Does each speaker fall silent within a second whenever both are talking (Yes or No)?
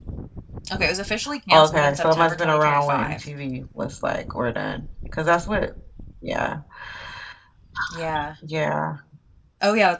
No